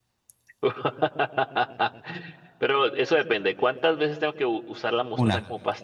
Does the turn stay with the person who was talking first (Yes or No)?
Yes